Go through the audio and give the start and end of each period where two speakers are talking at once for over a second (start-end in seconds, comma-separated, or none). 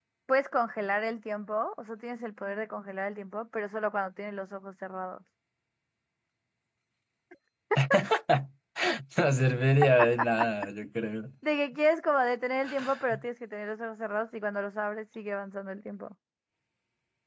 none